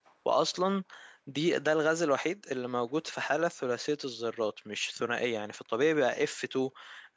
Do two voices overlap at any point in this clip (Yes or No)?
No